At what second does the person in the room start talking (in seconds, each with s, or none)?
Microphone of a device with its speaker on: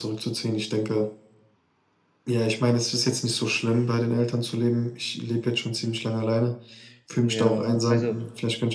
7.2 s